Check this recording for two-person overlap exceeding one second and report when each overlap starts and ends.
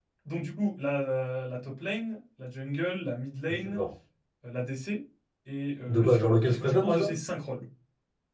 5.9-7.1

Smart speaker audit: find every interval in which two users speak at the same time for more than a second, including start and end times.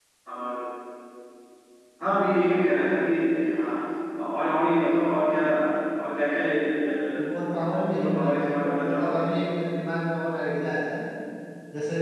8.0-9.2

